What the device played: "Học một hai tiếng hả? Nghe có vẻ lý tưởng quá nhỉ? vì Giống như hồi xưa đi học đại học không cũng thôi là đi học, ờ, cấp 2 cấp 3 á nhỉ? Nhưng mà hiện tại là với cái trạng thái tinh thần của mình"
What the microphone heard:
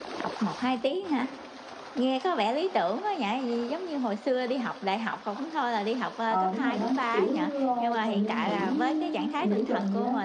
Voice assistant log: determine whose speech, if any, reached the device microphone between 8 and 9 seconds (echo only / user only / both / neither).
both